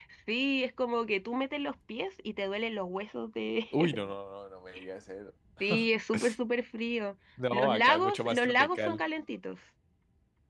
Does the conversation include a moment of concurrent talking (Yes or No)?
Yes